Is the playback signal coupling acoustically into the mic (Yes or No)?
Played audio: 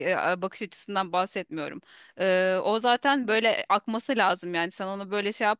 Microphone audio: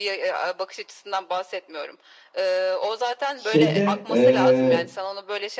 Yes